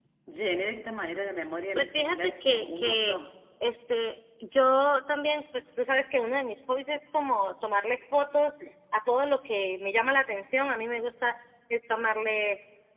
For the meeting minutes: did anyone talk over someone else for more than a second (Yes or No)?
Yes